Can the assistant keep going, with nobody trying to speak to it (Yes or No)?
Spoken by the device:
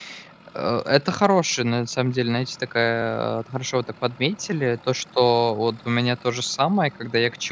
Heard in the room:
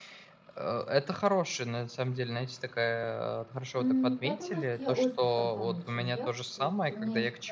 No